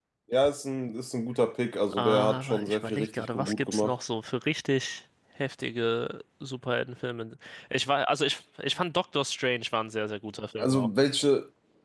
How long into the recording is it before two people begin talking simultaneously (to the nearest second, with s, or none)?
2 s